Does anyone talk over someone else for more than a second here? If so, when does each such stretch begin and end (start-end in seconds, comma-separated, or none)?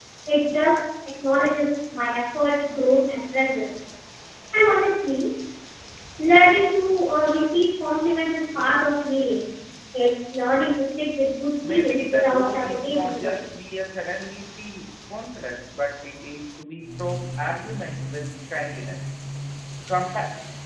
11.7-13.4